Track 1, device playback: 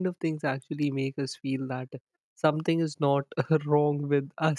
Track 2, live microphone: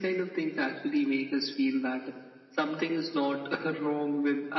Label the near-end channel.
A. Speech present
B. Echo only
B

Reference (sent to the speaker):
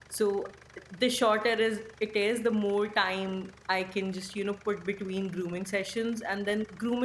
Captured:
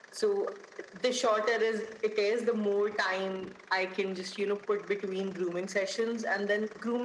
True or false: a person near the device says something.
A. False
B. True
A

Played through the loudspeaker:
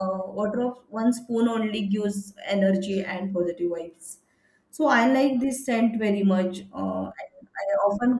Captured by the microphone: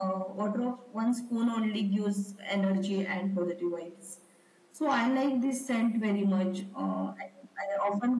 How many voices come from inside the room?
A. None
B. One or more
A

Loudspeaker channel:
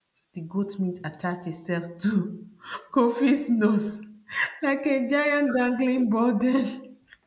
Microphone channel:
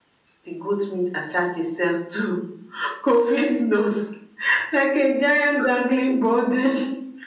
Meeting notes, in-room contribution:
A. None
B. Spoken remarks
A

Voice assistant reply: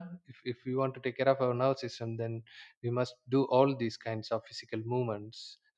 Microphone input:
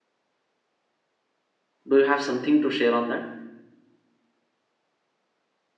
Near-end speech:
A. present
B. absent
A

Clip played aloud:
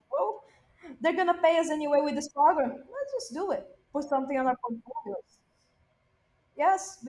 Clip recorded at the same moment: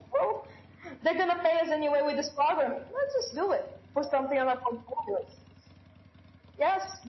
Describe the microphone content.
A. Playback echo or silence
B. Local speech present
A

